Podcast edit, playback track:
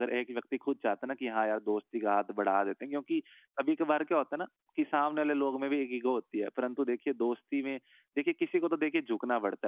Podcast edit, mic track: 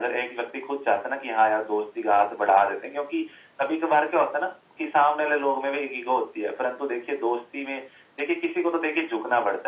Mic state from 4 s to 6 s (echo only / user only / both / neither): echo only